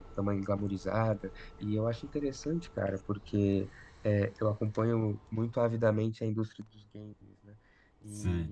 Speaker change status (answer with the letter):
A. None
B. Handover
B